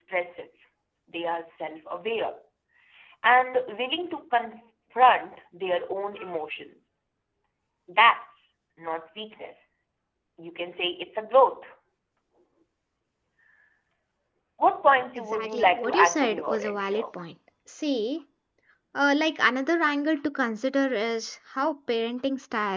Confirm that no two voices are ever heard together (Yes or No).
No